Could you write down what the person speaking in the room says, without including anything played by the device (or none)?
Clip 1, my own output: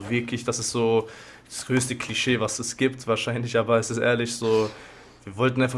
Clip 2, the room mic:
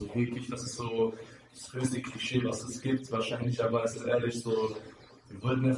none